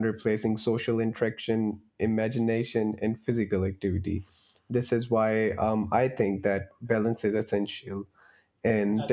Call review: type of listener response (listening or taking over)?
listening